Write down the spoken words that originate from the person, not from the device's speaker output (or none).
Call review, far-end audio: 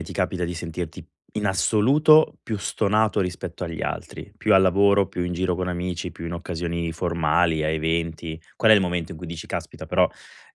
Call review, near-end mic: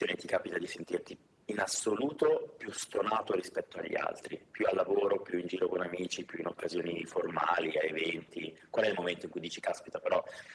none